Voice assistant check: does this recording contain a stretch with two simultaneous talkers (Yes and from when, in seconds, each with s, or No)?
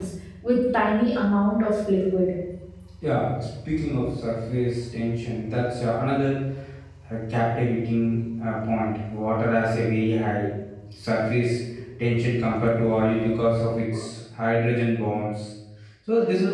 No